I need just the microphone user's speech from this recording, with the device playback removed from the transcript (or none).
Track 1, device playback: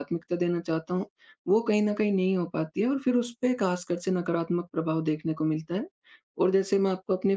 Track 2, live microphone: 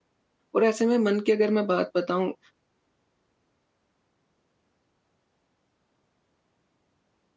और ऐसे में मन की अगर मैं बात बताऊँ,